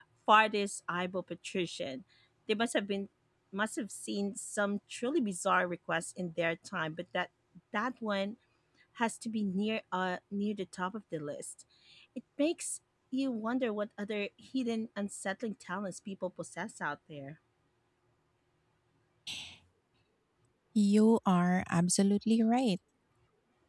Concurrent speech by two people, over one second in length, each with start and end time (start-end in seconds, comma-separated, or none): none